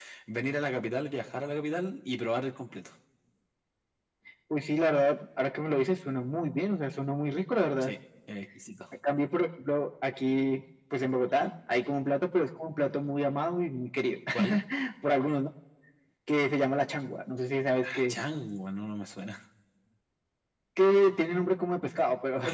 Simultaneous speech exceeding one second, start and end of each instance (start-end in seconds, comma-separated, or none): none